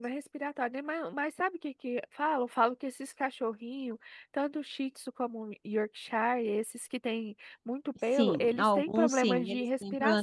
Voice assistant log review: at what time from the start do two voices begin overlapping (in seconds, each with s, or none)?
8.2 s